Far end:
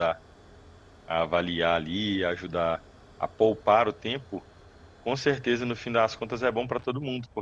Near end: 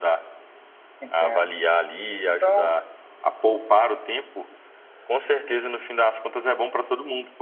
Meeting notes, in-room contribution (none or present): present